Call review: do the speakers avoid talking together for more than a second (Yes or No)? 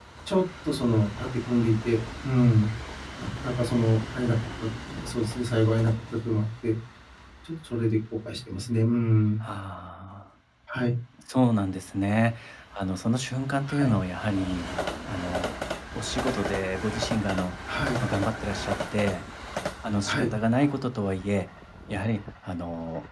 Yes